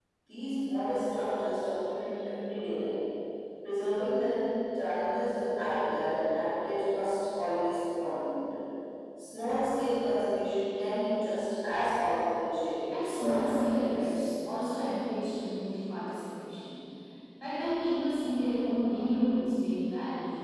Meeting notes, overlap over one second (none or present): present